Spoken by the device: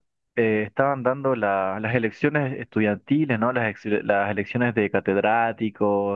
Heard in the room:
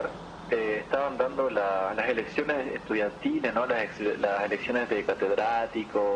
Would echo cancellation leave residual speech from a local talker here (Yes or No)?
No